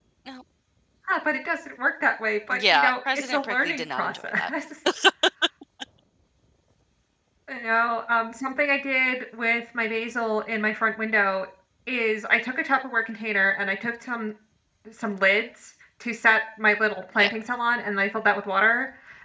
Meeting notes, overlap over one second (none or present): present